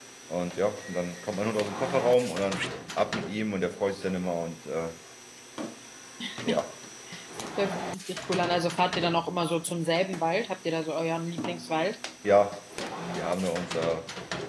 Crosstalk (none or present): none